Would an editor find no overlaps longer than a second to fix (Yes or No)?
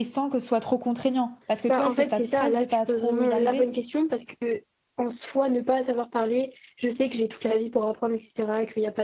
No